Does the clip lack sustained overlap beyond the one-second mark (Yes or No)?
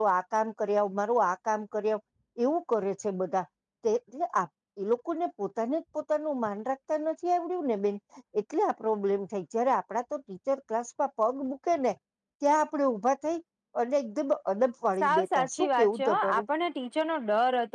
No